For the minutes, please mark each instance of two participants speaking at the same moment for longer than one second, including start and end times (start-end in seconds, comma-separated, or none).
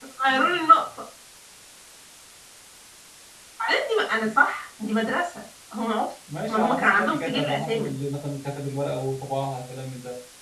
6.5-7.9